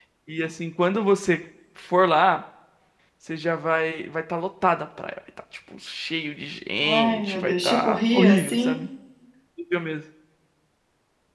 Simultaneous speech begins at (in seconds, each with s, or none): 6.8 s